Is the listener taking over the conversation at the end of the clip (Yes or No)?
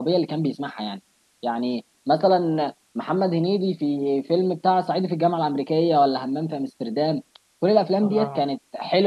No